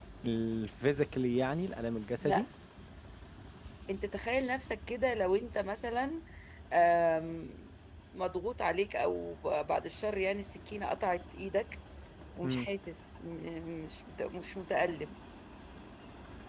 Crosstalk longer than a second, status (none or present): none